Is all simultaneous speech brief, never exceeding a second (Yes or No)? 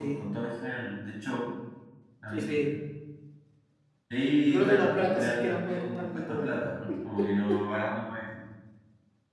No